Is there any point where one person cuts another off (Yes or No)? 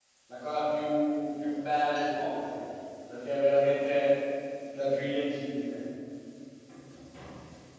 No